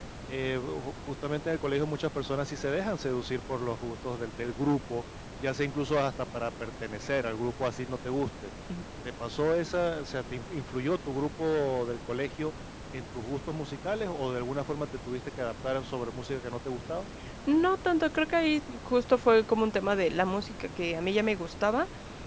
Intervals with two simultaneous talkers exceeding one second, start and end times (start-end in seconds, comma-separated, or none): none